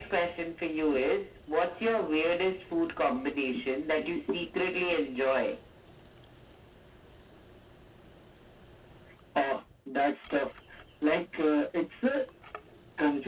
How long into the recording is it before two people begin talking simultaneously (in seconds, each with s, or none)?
none